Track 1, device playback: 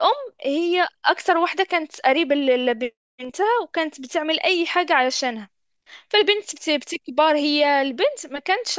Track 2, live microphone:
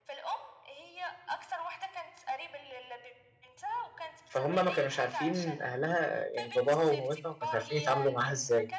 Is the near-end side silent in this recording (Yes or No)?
No